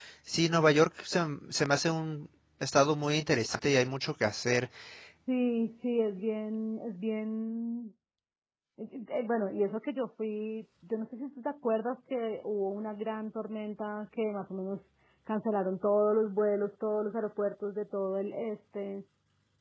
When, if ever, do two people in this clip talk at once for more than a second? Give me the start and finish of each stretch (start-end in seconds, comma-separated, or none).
none